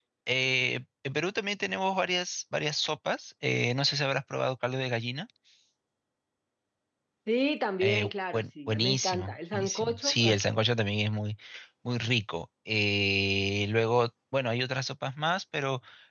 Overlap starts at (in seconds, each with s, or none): 7.8 s